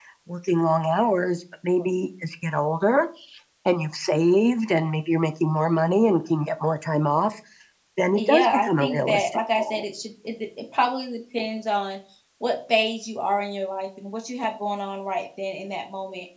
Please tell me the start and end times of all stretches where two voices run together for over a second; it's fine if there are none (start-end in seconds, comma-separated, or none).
8.2-9.8